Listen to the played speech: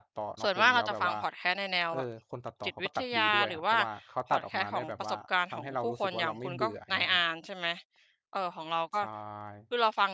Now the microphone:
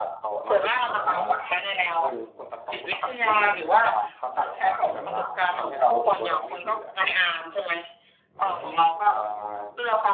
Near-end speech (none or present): none